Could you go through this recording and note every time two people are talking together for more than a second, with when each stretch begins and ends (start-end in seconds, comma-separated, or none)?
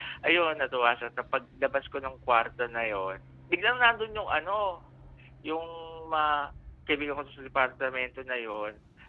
none